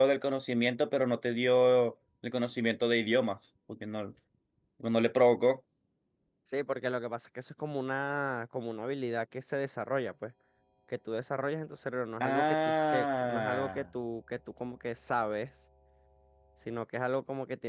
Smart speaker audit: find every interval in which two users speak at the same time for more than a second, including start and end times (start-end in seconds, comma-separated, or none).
12.2-13.8